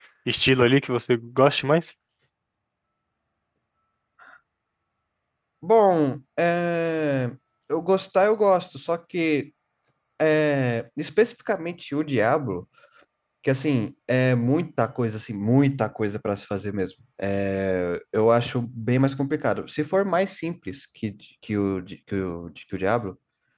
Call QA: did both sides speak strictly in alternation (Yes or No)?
Yes